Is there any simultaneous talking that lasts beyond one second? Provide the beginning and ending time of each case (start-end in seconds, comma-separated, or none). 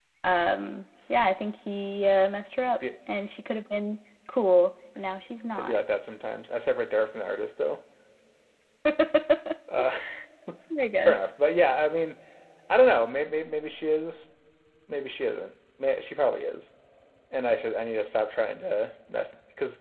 none